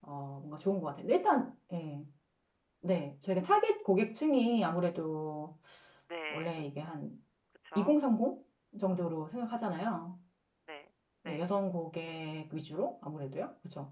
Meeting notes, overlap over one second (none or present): none